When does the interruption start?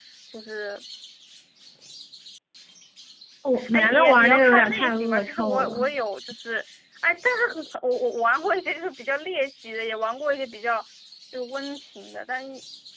3.7 s

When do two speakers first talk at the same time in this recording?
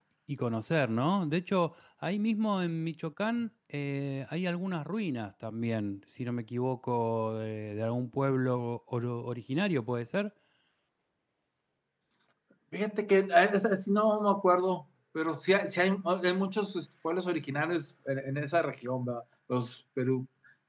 none

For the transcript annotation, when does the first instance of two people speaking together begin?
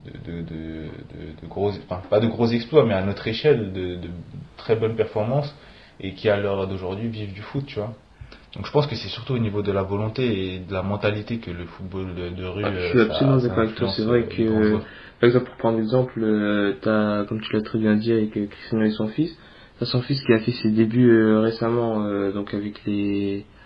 12.6 s

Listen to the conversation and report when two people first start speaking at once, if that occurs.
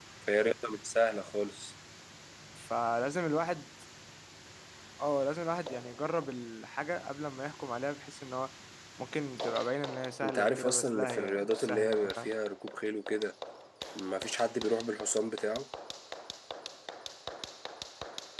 10.2 s

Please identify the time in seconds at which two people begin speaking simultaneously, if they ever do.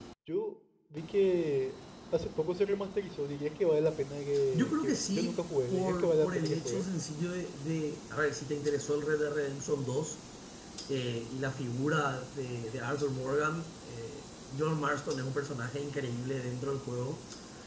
4.5 s

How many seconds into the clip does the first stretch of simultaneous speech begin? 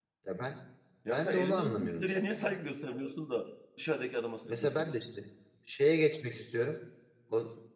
1.1 s

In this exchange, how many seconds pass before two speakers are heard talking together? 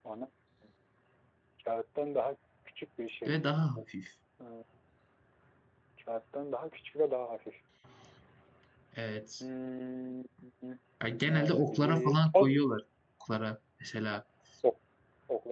11.2 s

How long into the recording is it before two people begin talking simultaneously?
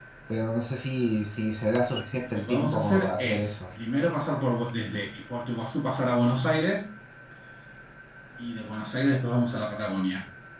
2.2 s

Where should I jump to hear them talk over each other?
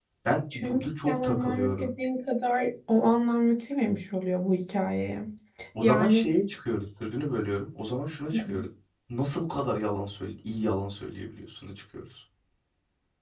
0.5 s

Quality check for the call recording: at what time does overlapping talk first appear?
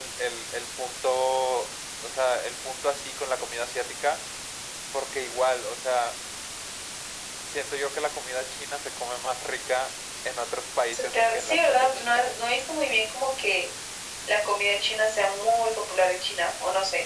10.9 s

